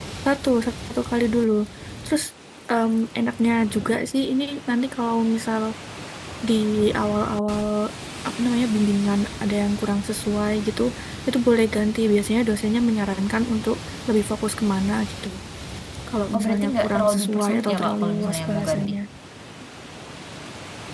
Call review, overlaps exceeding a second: present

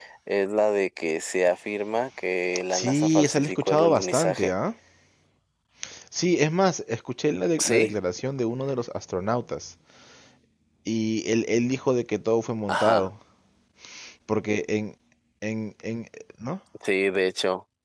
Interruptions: present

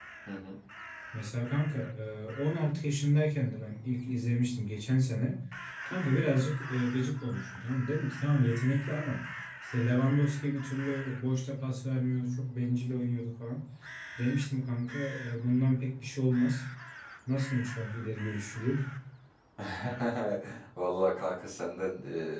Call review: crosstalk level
none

